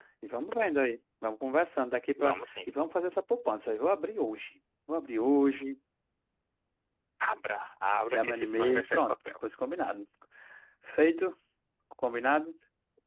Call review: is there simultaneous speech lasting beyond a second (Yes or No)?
Yes